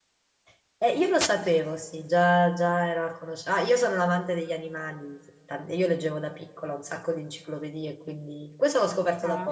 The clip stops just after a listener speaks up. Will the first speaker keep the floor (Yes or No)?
Yes